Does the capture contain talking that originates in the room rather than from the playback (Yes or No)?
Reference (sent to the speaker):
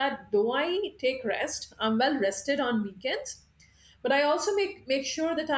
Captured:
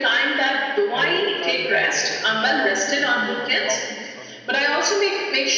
Yes